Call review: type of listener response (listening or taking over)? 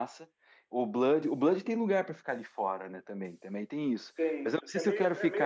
taking over